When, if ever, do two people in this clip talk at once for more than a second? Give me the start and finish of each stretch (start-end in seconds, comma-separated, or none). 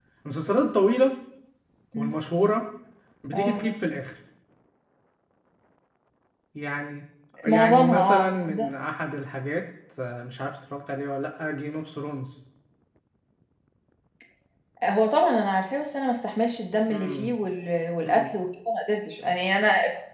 7.5-8.7